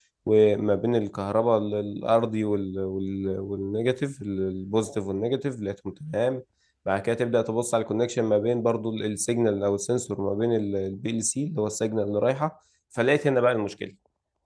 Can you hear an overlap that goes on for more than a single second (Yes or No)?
No